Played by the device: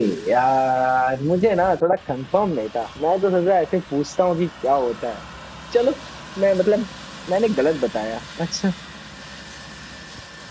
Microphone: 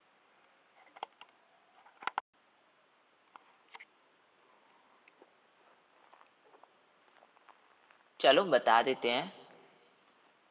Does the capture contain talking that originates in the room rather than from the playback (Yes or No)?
Yes